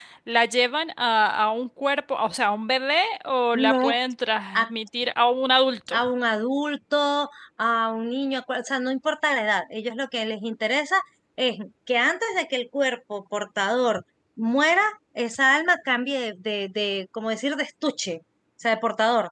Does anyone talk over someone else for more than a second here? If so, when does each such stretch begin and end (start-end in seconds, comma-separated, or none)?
none